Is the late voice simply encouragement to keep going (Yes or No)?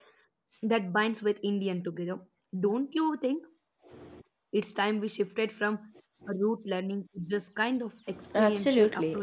No